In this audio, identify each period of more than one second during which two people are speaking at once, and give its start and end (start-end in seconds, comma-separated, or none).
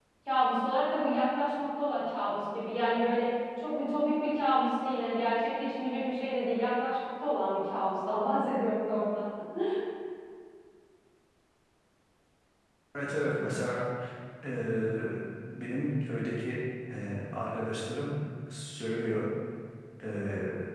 none